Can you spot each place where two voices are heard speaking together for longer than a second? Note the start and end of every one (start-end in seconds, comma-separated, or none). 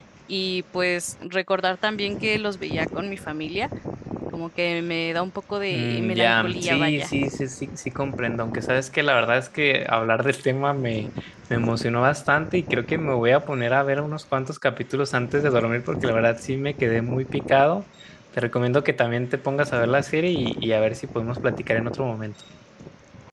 5.7-7.1